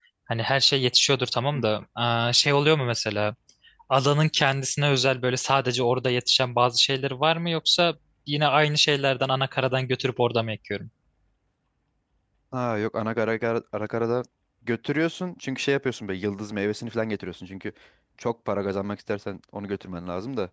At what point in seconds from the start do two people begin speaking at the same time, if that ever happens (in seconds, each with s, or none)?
none